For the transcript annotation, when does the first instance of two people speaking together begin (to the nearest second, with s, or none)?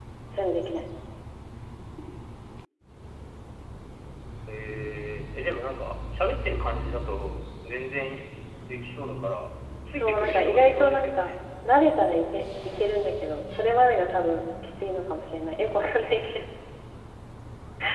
10 s